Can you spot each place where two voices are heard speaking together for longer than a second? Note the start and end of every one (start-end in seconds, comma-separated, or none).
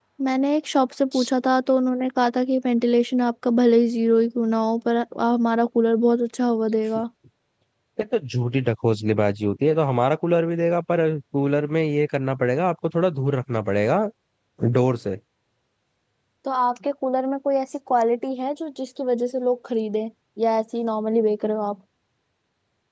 none